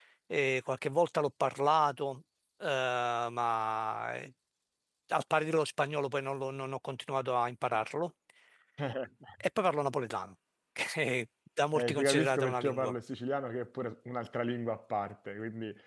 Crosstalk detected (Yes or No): Yes